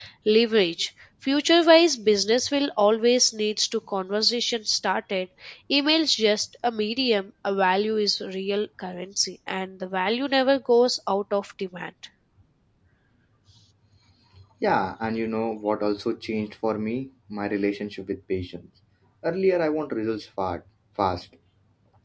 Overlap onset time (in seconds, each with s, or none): none